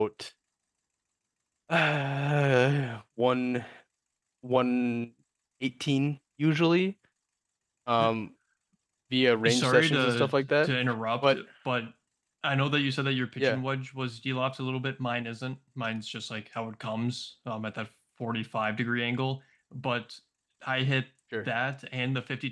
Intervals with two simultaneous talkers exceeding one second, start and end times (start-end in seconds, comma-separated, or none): 9.5-10.7